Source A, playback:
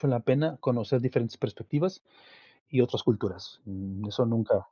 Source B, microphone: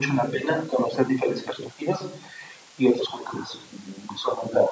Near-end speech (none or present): none